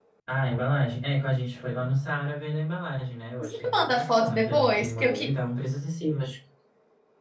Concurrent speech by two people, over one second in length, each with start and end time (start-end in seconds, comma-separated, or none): 3.4-5.3